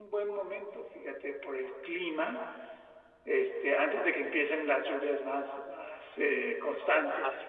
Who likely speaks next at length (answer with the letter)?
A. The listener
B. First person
A